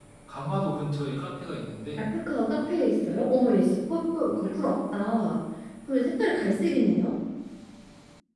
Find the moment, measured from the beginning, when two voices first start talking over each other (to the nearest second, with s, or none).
none